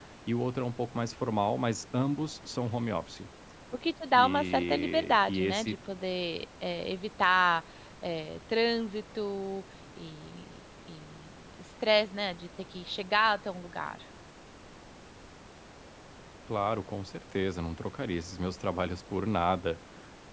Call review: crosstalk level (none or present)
present